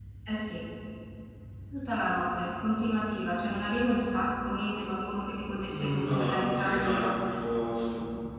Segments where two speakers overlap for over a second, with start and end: 5.7-7.1

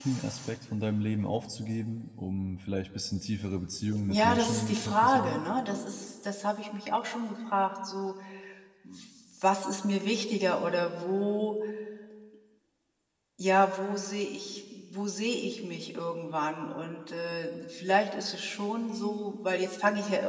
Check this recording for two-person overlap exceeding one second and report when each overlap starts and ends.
4.1-5.4

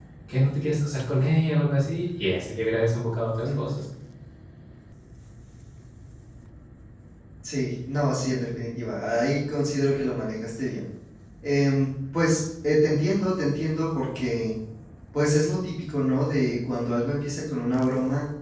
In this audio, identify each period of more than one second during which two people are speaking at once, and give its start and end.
none

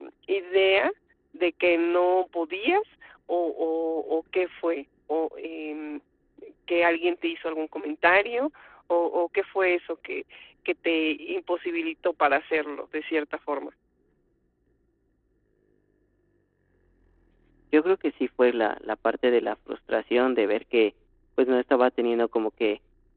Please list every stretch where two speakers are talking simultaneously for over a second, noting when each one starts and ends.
none

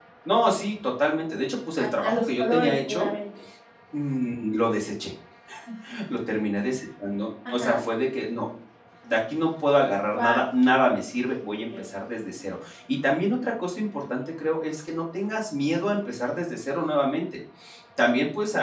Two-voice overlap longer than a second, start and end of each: 1.8-3.1

